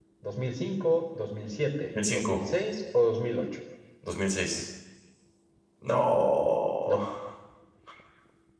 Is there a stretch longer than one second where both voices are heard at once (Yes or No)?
No